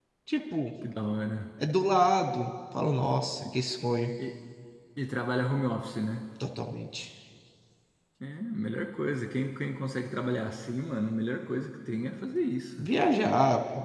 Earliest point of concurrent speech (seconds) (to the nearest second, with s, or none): none